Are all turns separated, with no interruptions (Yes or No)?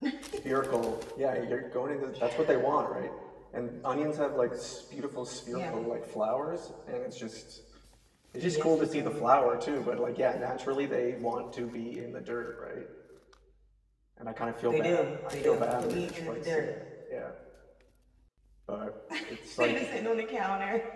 No